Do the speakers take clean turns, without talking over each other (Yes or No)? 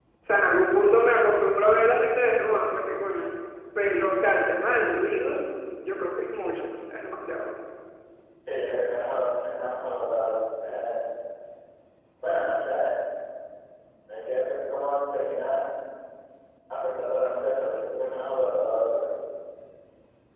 Yes